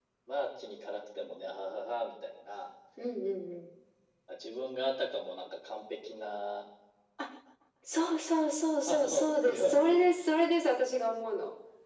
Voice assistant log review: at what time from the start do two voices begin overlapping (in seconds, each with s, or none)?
8.8 s